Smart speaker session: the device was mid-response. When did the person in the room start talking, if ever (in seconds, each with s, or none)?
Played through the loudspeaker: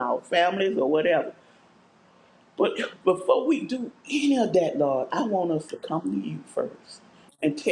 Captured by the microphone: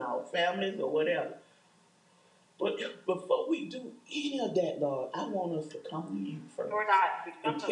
6.7 s